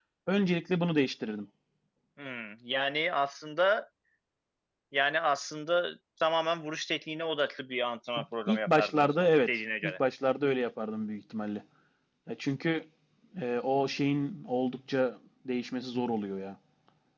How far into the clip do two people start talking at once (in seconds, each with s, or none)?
8.5 s